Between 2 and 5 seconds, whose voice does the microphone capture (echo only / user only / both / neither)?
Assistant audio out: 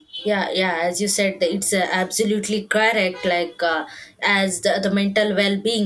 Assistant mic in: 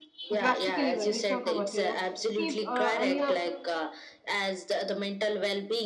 both